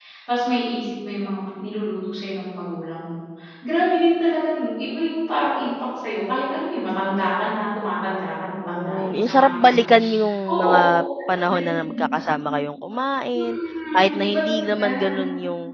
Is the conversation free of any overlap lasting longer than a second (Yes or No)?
No